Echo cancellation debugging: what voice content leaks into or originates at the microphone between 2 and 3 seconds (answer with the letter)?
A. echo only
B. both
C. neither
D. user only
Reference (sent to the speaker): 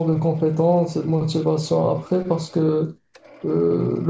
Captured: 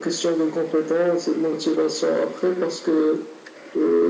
A